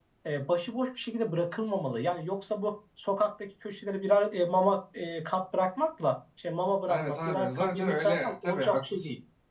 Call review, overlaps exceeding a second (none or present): present